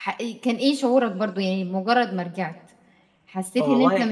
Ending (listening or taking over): listening